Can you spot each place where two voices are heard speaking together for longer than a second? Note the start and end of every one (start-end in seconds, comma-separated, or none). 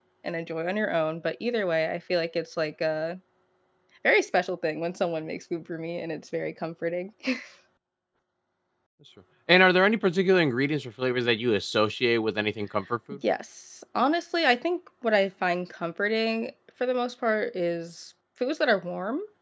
none